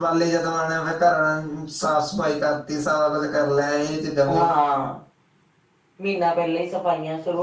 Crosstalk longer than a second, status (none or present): none